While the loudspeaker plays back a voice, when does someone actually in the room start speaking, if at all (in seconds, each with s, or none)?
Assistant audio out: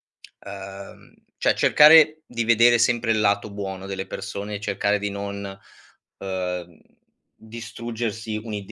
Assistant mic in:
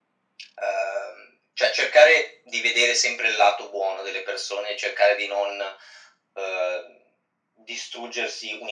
none